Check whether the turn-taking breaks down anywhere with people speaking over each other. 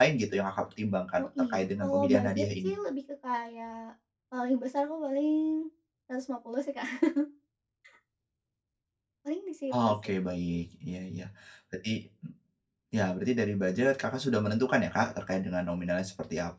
Yes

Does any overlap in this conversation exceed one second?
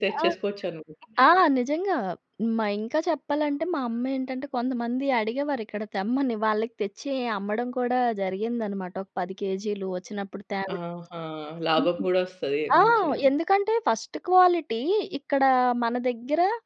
No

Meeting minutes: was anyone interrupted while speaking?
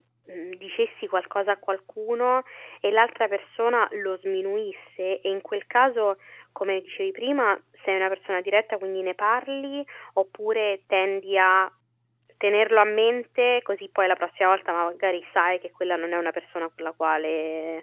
No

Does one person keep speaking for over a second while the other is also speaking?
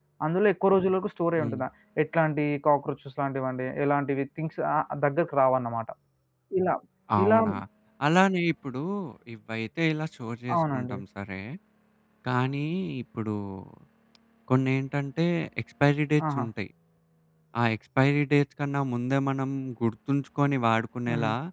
No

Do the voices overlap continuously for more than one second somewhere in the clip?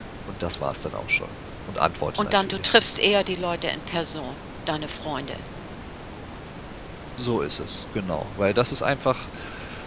No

